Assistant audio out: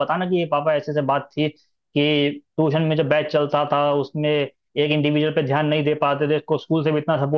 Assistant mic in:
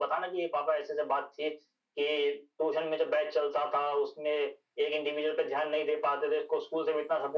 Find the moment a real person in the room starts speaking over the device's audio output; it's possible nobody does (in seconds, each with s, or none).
none